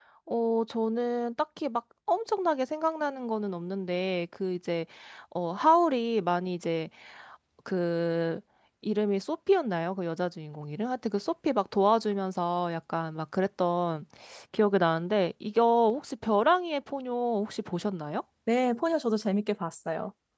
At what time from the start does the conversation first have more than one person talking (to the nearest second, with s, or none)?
none